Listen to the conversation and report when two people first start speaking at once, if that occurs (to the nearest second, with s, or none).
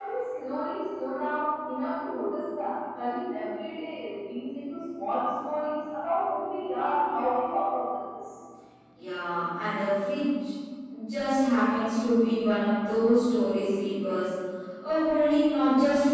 none